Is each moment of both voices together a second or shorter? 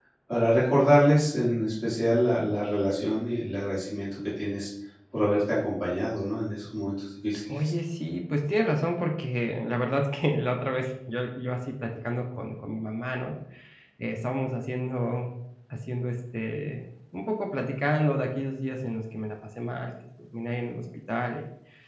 Yes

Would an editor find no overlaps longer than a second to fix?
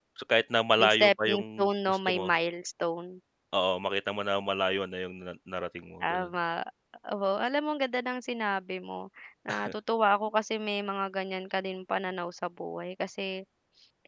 No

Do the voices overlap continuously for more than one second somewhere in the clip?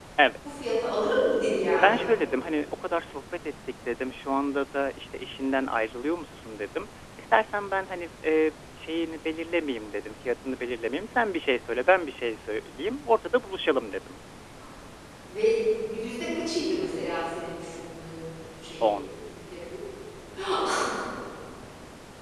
No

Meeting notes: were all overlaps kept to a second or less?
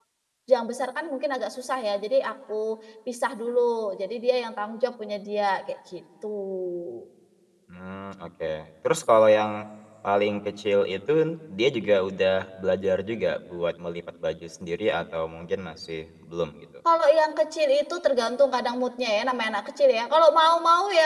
Yes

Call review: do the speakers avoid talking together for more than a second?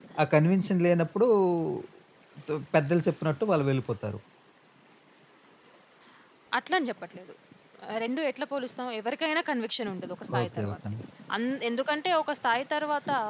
Yes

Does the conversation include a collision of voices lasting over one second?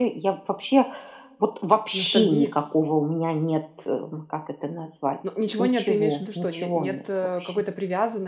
Yes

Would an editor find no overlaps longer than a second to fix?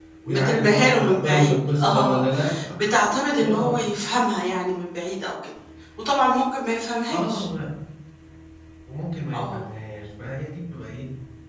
No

